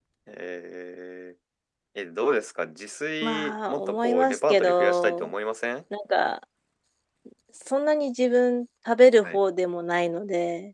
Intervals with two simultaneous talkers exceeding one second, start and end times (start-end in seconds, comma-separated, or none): 3.2-5.3